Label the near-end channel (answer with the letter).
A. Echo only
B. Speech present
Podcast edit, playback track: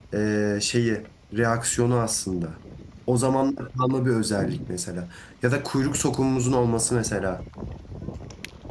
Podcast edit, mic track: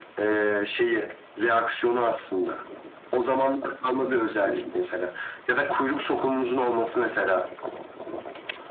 A